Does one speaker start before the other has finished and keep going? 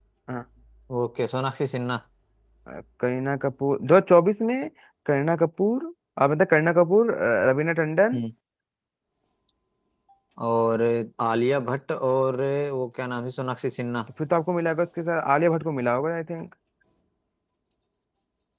No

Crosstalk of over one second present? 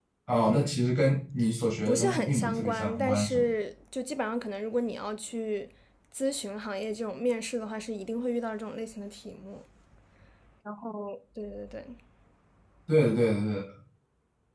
Yes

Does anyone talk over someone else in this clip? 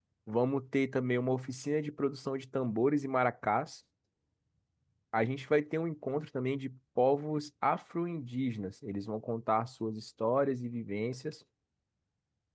No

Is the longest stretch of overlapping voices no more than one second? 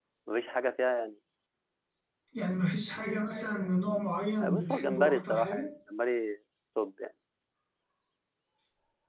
No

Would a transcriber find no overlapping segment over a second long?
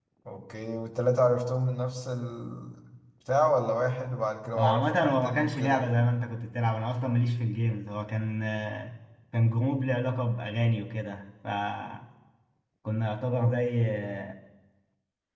No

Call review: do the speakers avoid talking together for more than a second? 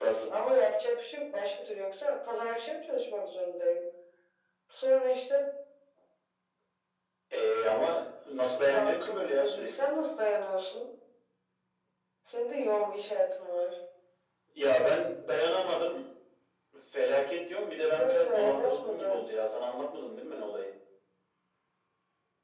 No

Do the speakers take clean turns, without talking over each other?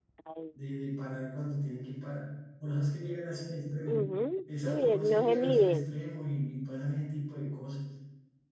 No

